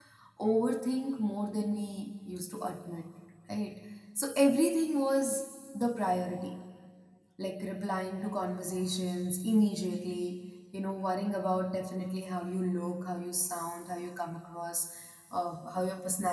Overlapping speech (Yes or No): No